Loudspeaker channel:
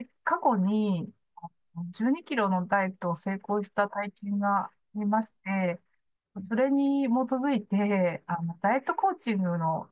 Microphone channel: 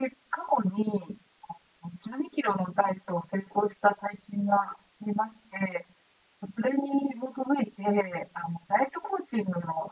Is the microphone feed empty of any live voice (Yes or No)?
Yes